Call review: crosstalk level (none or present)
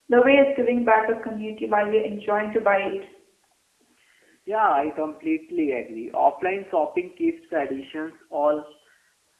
none